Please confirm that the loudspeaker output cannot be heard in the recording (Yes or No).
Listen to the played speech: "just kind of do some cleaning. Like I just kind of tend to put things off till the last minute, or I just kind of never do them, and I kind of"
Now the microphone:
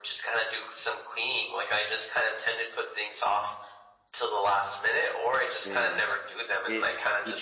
No